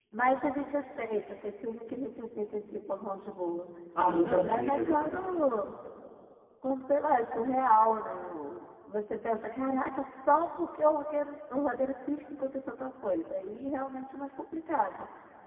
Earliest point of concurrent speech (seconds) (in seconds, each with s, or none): 4.1 s